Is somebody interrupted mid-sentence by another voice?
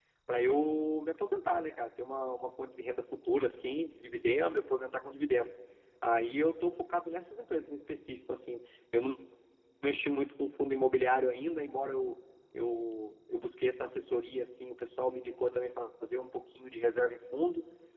No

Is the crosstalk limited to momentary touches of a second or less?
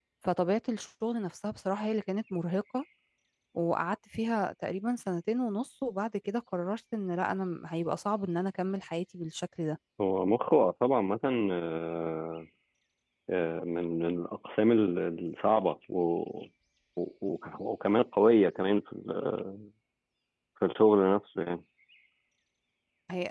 Yes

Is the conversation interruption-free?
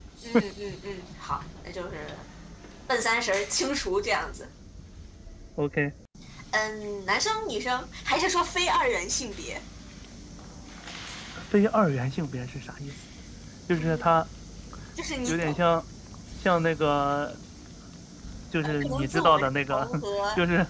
No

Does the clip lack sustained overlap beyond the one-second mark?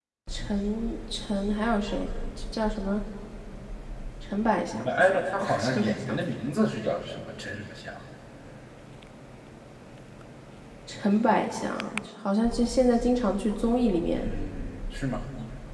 No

